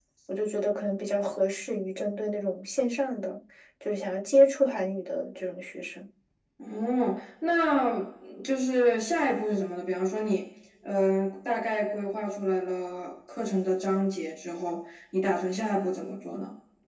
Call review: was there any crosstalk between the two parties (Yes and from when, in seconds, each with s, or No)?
No